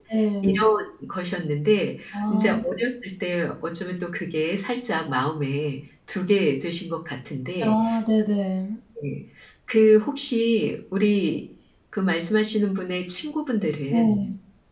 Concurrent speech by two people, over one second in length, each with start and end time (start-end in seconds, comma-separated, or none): none